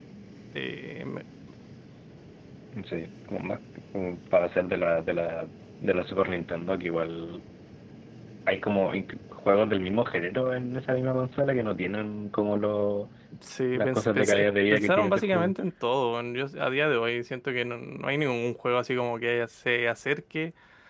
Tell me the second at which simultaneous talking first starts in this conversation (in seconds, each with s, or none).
13.7 s